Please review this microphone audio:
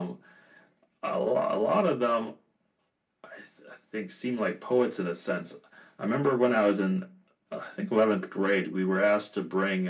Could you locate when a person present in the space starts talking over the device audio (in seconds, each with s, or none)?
none